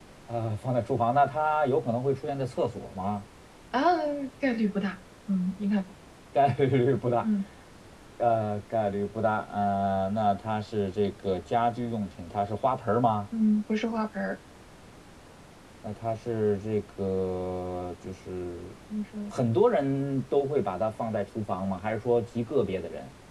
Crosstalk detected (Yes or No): No